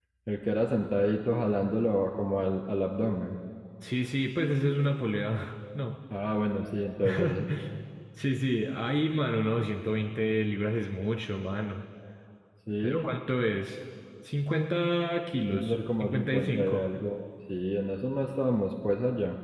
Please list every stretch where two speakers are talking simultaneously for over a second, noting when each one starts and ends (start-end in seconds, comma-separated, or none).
15.5-16.8